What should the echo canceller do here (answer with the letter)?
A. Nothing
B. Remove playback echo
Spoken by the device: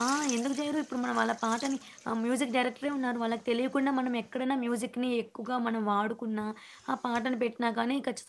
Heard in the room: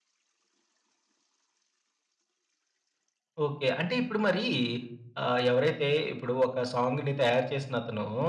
A